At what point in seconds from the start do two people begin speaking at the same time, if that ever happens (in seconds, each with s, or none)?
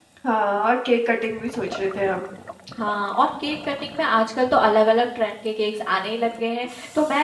none